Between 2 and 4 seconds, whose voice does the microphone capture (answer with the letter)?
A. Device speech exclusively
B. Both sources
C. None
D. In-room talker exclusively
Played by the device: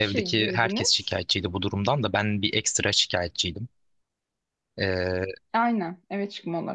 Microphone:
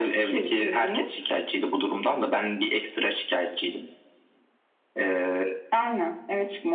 A